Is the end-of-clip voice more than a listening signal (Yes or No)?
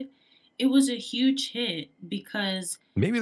Yes